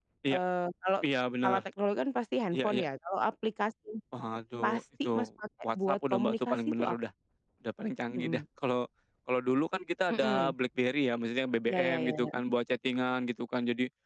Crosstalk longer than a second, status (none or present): present